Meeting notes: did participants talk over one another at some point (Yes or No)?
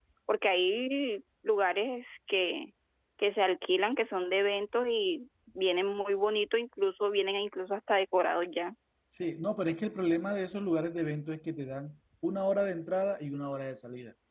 No